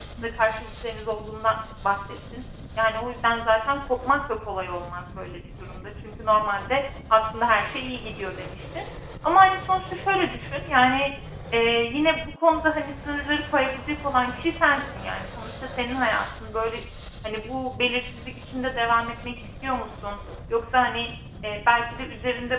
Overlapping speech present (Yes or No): No